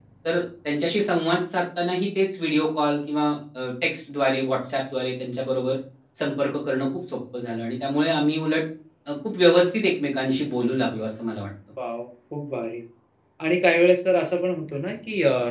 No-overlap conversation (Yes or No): Yes